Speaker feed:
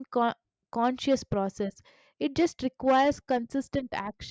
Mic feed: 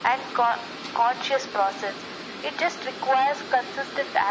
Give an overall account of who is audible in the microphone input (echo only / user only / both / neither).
echo only